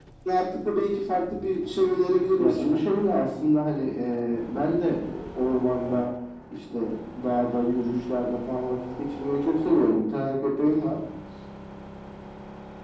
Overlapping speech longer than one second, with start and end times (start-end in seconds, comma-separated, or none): none